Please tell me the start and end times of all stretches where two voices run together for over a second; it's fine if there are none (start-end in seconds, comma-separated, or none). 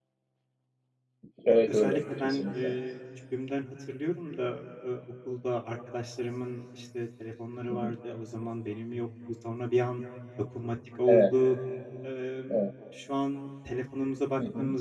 1.5-2.7